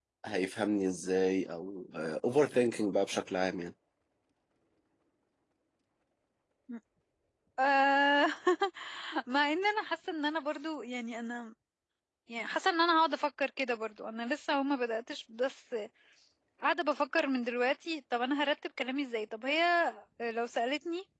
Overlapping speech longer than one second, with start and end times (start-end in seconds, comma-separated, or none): none